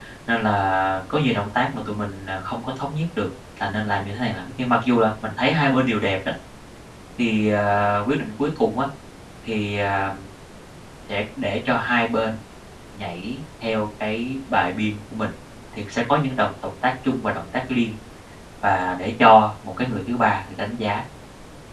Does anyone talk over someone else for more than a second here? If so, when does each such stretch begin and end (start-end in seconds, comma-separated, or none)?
none